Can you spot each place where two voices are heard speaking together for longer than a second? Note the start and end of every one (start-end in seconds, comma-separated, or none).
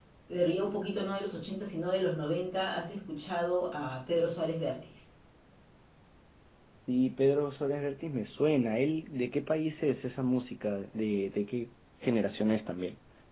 none